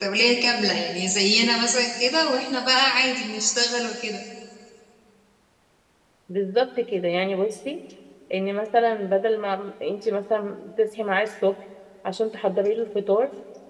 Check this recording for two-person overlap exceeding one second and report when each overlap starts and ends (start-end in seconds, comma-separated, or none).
none